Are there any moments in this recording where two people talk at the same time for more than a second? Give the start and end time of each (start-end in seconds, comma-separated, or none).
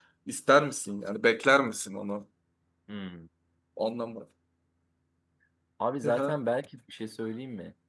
none